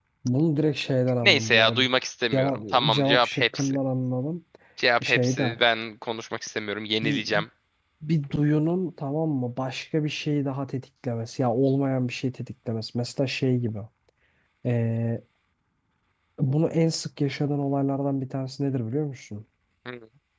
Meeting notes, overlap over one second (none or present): present